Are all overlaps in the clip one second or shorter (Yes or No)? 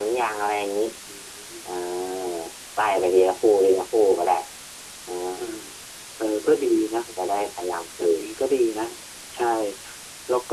Yes